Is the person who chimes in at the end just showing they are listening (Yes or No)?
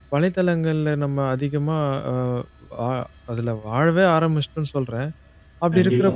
Yes